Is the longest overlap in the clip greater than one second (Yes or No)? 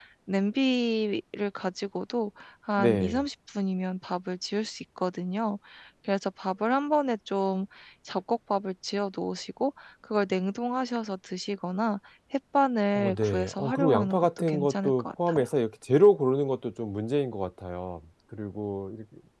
Yes